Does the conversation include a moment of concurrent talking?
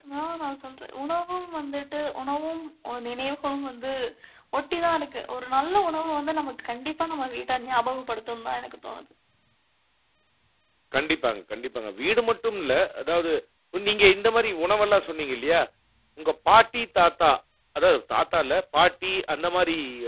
No

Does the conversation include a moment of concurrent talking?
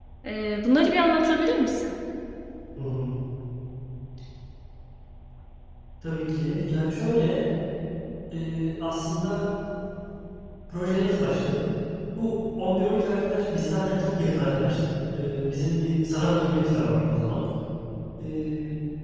No

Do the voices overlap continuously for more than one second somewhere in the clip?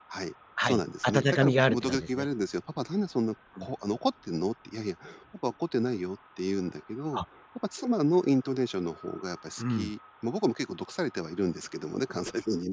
Yes, from 0.6 s

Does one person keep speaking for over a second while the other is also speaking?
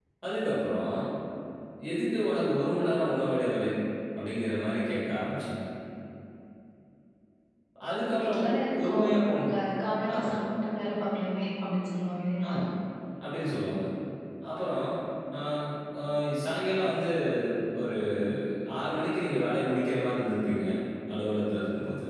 Yes, from 8.2 s

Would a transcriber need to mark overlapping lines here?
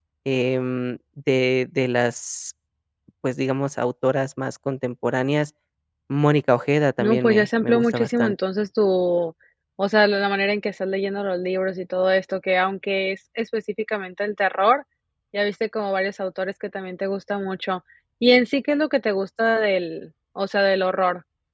Yes, from 7.0 s

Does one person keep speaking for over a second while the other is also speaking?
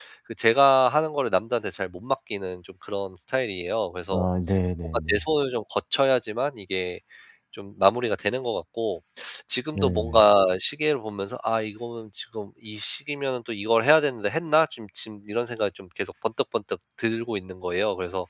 No

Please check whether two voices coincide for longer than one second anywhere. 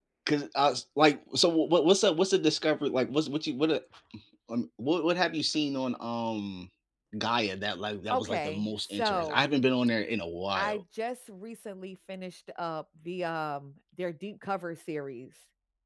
Yes, from 8.1 s

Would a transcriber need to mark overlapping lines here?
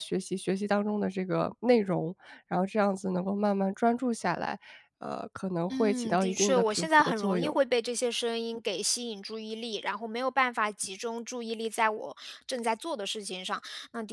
Yes, from 5.7 s

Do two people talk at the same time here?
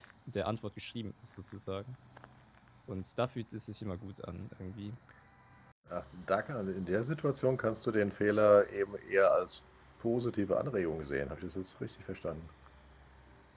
No

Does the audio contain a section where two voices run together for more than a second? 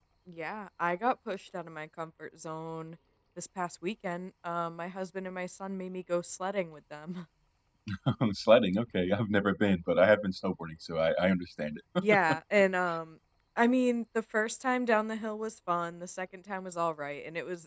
No

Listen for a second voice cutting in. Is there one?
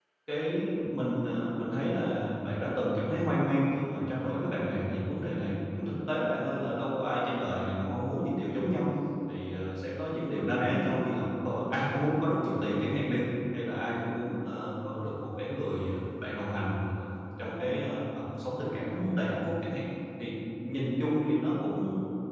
No

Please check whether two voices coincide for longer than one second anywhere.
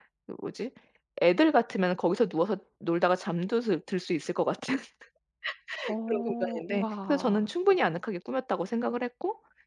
Yes, from 6.1 s

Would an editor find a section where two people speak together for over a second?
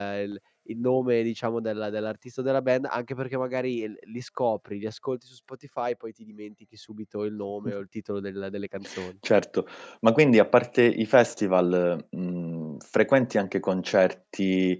No

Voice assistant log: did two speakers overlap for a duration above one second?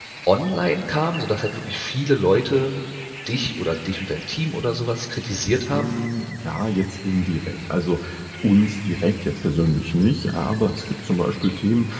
No

